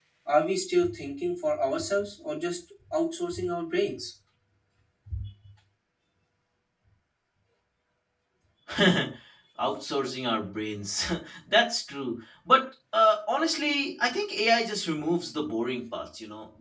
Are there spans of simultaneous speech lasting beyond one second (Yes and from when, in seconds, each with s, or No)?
No